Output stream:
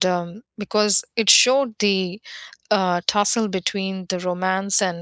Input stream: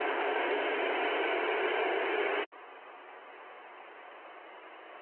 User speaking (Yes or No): No